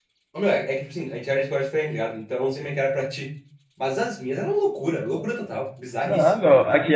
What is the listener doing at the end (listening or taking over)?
taking over